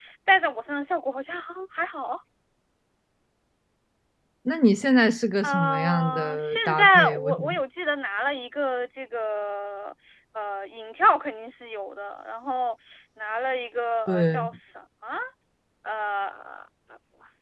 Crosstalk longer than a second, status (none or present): present